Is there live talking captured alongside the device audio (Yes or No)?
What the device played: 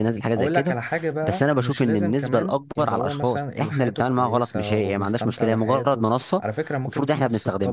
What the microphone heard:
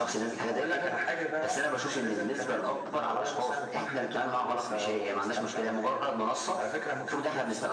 No